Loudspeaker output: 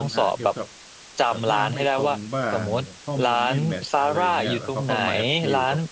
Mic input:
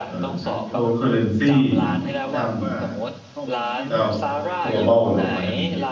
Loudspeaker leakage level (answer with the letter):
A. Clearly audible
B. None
A